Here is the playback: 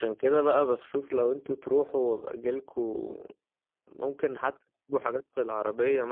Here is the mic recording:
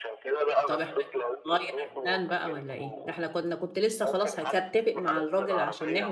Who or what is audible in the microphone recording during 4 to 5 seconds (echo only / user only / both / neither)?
both